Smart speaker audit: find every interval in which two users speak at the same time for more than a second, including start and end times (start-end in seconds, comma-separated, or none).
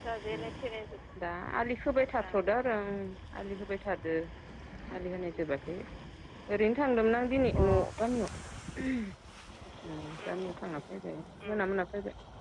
none